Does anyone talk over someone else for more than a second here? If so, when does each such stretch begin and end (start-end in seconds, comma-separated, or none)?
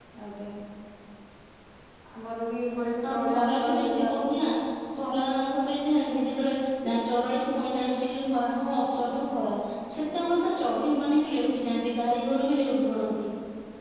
3.1-4.5